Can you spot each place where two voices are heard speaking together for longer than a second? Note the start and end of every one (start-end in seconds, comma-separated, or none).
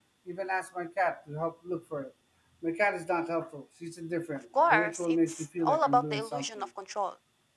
4.6-6.7